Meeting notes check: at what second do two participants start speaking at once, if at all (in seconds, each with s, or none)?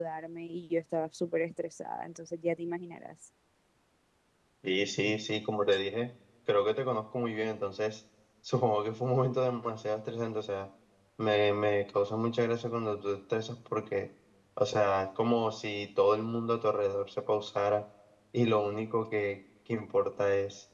none